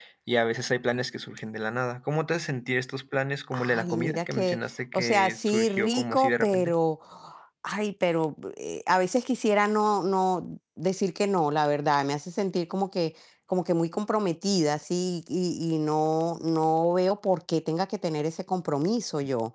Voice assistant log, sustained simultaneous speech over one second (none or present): present